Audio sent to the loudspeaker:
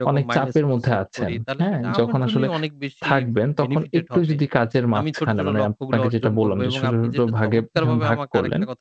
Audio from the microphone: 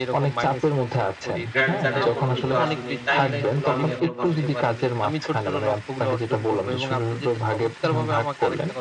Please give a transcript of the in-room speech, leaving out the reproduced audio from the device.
গ্র্যান্ড চার্টের কোনো কিছু আসেনি। টাইমলাইন গুলো আমি এখনো বসাতে পারিনি।

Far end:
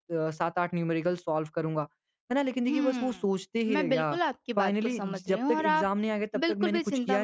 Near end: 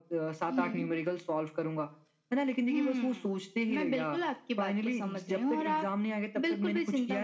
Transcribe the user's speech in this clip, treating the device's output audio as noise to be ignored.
हुँ,

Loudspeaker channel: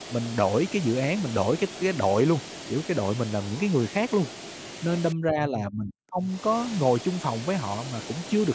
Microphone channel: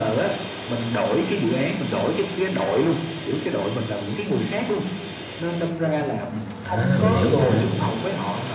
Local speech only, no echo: à, mình hiểu luôn nè.

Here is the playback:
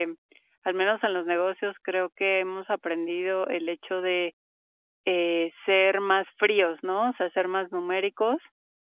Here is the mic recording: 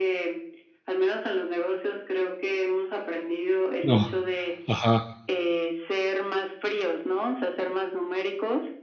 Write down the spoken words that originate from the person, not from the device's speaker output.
No. Ajá.

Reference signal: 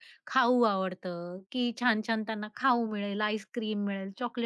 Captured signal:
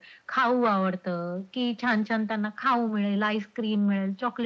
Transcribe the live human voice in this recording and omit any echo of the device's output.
none

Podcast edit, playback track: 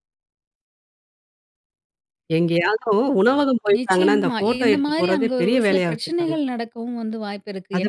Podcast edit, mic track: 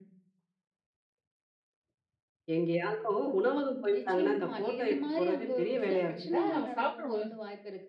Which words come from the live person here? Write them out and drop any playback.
வ வந்தா அவன் சாப்பிடுவோம்.

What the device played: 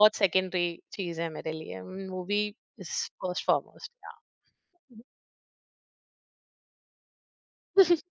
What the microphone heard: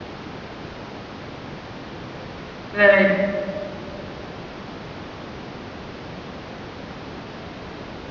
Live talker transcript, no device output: राइट।

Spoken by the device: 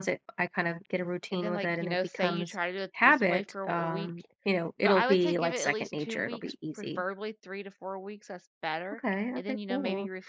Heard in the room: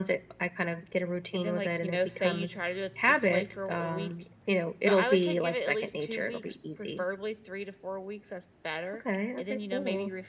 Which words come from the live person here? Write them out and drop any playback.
none

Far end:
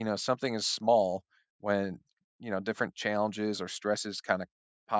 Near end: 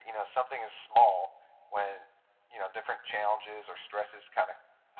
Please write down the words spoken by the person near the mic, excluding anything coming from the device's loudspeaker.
none

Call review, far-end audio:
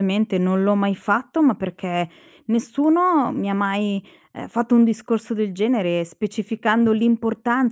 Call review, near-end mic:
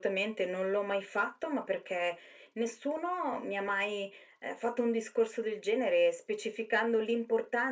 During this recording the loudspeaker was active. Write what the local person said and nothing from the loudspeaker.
none

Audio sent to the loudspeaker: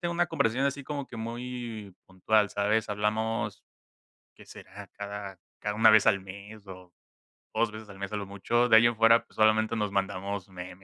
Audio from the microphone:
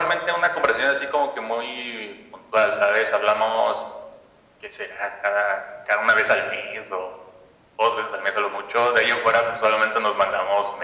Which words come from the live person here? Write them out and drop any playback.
none

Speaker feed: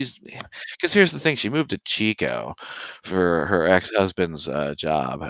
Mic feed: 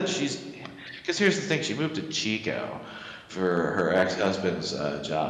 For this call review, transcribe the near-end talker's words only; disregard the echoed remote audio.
none

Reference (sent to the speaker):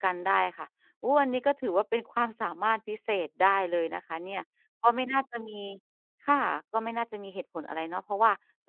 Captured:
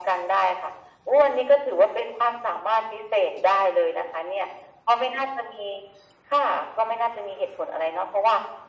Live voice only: none

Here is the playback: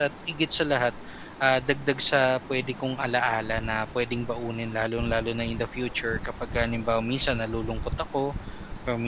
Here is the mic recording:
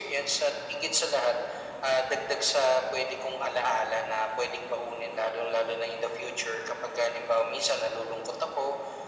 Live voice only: none

